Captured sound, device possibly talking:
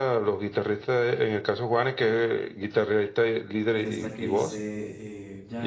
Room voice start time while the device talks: 4 s

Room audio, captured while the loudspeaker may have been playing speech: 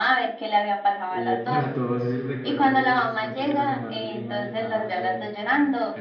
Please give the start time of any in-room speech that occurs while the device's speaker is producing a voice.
1 s

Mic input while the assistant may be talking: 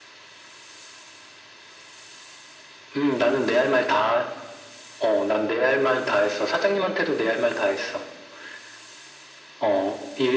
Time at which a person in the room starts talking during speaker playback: none

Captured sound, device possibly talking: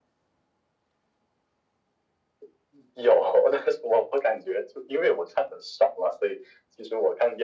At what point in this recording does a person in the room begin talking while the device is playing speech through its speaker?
none

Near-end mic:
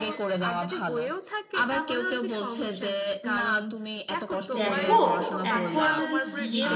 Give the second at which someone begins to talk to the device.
5 s

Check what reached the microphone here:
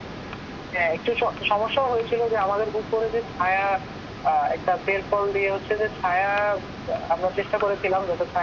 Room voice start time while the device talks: none

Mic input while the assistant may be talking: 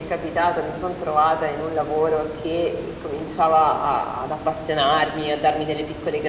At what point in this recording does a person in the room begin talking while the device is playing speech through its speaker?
none

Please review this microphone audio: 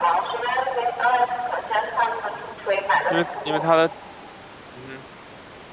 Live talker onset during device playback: 3 s

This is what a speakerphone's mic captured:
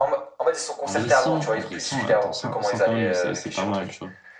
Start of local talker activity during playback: 1 s

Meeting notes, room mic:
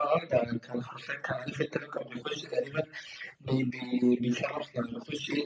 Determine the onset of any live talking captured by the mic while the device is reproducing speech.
none

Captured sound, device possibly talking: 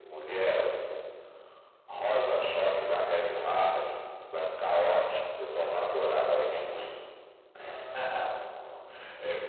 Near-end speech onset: none

